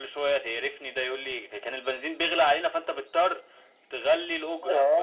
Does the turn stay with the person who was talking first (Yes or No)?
No